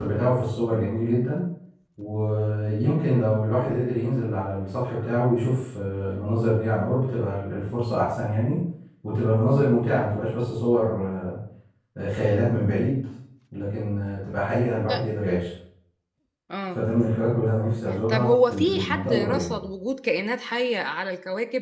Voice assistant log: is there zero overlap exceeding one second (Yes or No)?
No